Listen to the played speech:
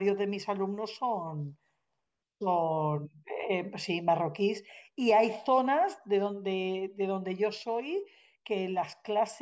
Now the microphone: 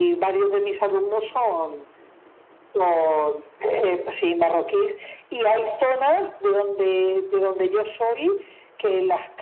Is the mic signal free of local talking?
Yes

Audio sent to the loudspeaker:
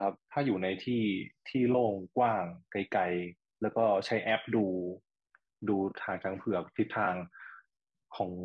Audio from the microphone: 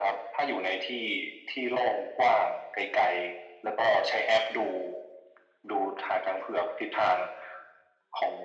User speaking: No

